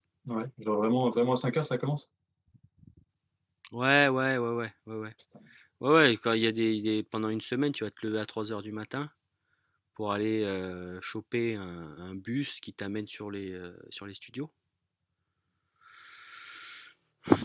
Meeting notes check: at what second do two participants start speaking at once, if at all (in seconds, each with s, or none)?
none